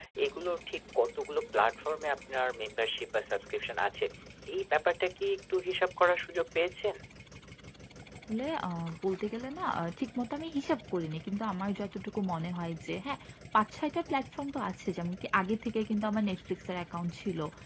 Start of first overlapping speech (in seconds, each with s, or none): none